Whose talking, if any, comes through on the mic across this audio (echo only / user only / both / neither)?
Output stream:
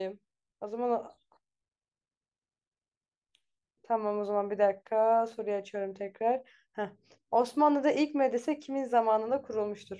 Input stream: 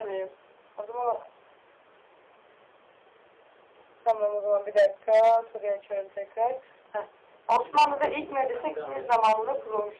both